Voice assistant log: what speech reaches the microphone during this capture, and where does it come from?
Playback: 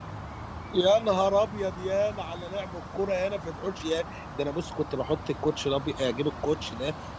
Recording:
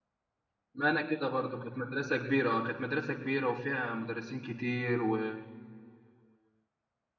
user only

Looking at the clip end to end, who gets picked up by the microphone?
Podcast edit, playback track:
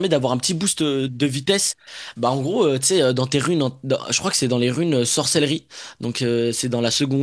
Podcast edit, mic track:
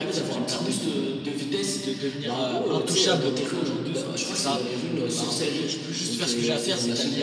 both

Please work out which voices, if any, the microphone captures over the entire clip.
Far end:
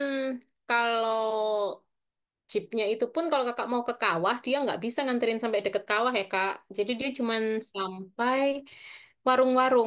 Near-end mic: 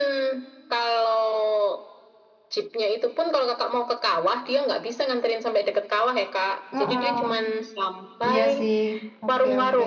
both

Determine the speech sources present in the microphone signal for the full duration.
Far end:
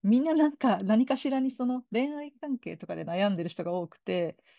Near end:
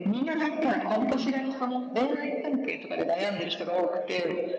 echo only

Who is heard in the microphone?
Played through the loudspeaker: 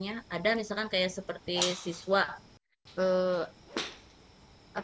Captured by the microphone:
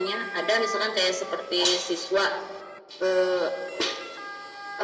echo only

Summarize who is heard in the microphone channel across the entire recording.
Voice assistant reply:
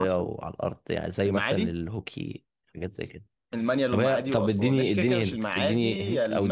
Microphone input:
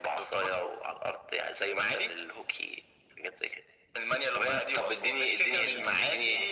both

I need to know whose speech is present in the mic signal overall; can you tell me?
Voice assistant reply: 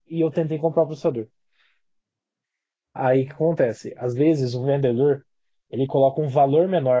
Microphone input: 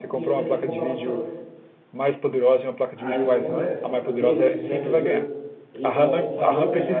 both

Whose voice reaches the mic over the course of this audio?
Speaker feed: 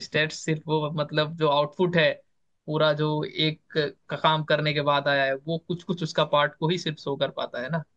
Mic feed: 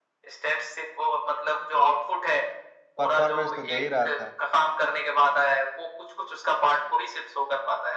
both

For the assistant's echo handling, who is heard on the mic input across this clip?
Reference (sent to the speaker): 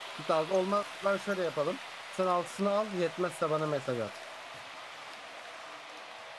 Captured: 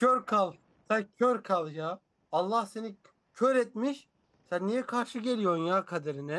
user only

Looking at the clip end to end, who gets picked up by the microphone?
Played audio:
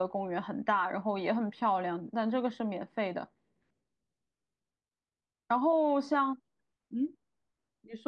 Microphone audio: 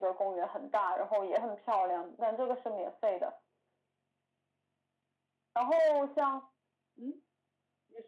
echo only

